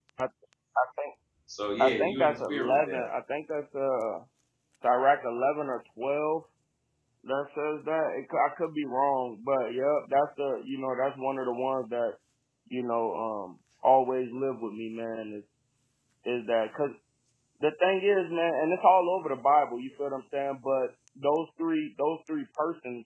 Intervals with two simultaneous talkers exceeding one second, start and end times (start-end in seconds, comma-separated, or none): 1.8-3.0